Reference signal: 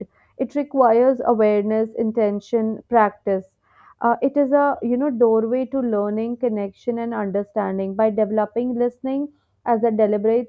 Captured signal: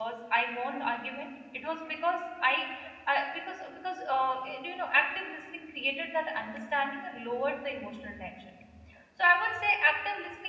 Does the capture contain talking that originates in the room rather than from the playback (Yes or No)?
Yes